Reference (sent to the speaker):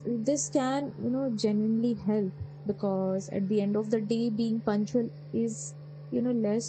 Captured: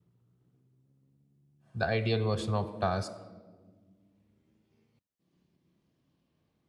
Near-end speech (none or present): present